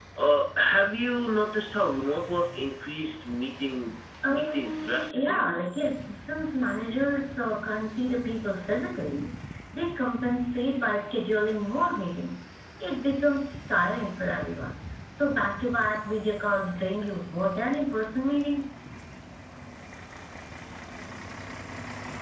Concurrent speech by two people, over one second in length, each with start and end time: 4.3-5.5

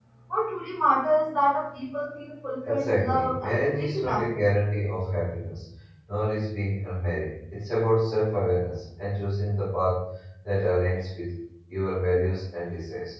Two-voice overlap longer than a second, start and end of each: 2.7-4.2

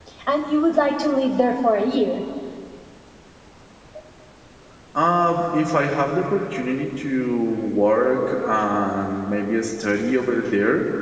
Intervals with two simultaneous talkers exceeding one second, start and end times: none

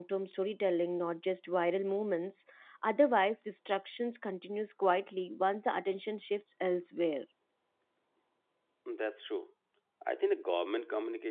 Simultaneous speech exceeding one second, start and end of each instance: none

